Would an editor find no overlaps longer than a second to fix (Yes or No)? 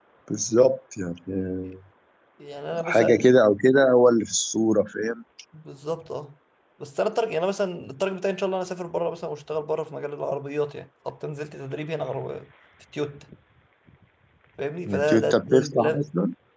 No